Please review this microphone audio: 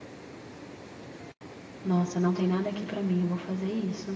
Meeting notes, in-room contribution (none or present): present